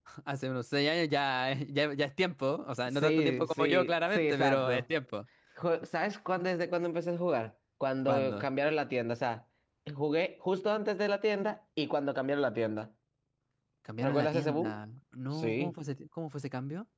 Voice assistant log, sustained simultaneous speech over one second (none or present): present